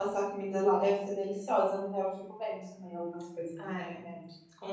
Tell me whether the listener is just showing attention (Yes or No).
No